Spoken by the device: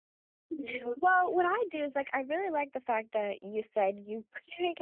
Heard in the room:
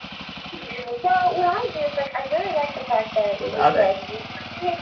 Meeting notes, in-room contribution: present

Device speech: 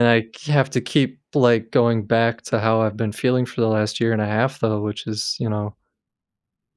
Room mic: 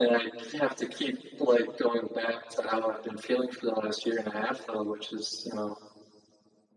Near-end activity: none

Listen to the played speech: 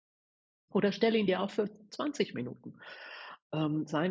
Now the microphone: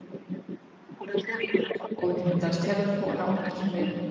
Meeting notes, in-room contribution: present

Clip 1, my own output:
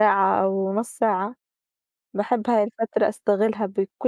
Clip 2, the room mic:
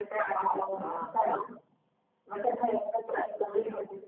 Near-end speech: present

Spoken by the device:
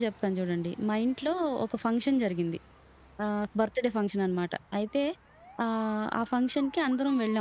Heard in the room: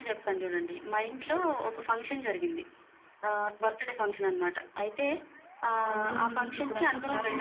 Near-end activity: present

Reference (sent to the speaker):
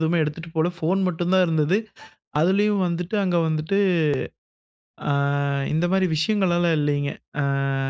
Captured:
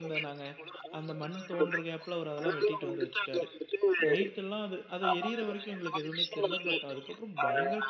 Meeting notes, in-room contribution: present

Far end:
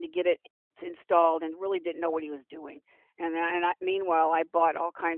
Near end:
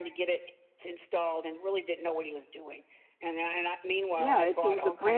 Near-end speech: present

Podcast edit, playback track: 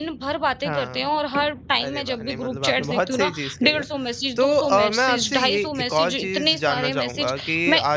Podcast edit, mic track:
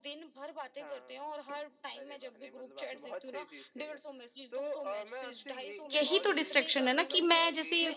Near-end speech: present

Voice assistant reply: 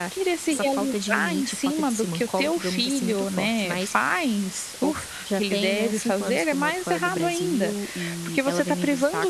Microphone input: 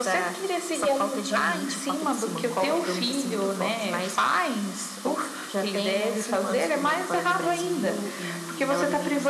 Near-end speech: none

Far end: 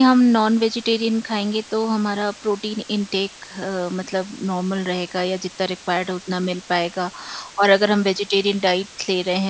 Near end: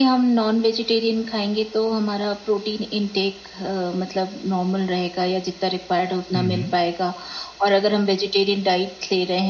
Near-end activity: present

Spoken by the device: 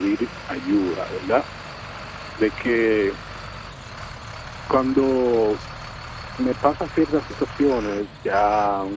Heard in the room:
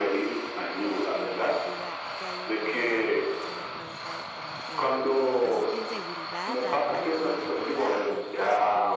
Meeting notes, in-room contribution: present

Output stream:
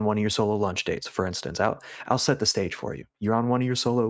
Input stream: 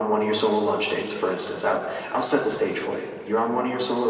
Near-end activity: none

